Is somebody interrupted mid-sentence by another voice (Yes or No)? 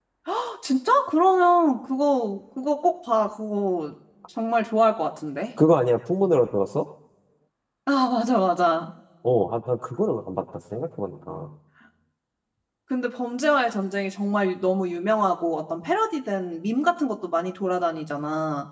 No